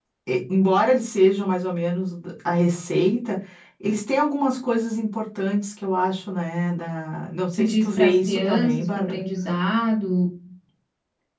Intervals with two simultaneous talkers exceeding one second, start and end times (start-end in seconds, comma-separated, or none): 7.6-9.2